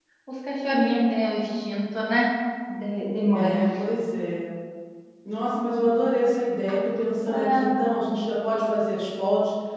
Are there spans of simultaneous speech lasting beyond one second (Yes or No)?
No